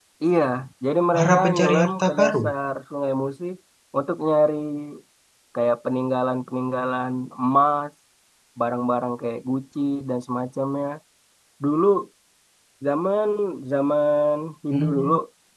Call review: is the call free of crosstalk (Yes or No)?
No